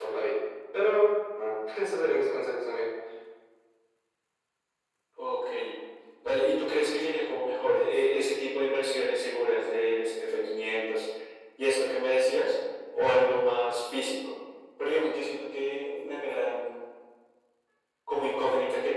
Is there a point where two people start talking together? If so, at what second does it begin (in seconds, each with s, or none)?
none